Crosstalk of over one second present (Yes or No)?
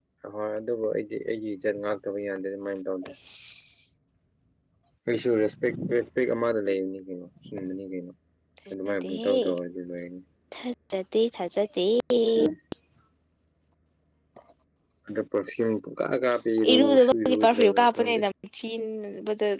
Yes